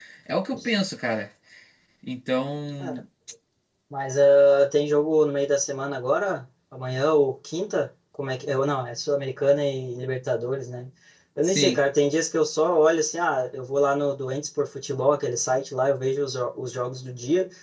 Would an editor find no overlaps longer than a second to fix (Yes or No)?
Yes